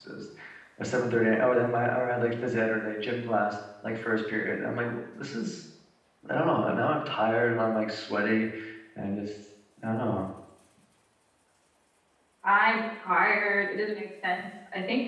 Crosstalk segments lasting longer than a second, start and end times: none

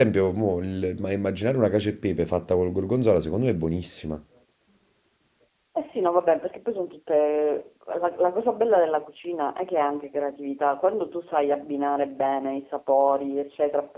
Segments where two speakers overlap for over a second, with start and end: none

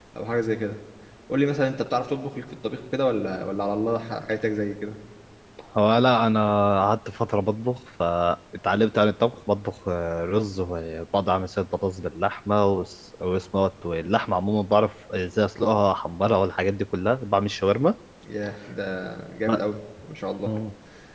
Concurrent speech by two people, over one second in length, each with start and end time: none

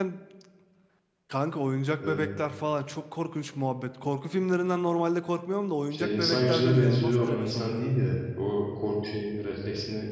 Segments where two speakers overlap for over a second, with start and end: 5.9-7.9

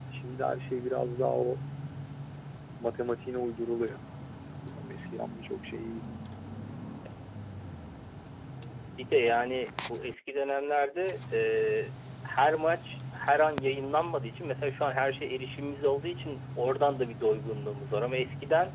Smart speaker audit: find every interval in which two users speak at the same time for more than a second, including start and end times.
none

